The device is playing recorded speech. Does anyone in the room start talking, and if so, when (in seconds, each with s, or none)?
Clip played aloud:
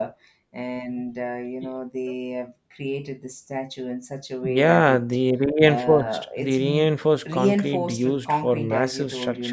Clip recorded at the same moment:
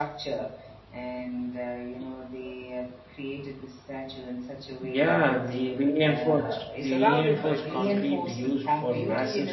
6.8 s